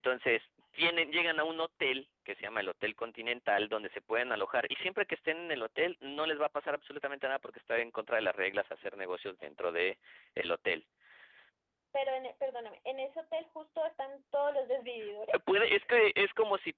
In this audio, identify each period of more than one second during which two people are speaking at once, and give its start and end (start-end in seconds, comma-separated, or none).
none